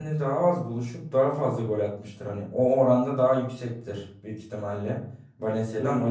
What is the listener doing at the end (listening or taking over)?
listening